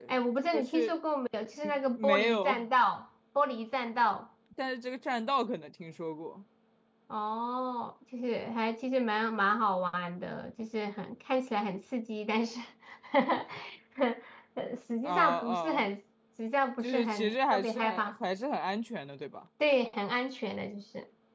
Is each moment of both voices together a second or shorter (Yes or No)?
No